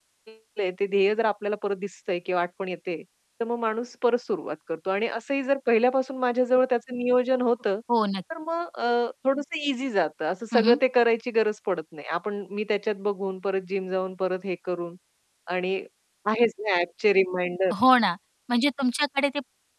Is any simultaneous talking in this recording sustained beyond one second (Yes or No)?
No